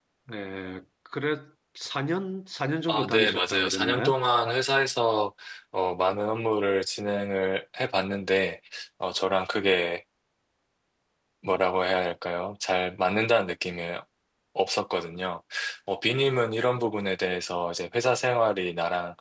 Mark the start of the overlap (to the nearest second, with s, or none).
3 s